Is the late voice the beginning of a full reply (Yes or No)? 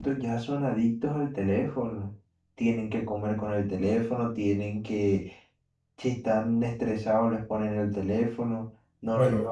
No